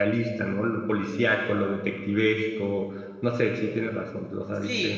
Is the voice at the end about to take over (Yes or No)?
Yes